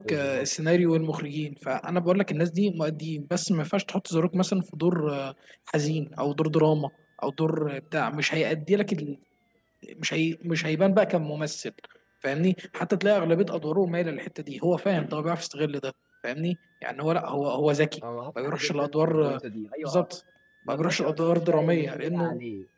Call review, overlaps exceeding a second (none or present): present